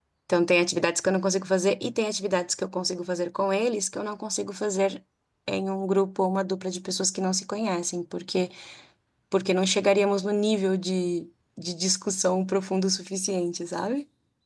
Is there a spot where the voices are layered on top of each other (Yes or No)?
No